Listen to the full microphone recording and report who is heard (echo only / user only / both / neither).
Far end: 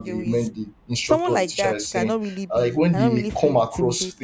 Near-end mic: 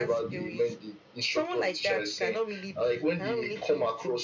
echo only